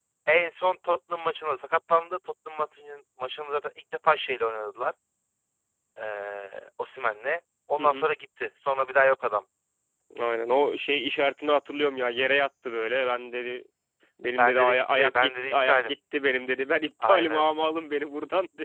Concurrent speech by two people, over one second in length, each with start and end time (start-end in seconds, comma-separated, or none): 14.4-15.9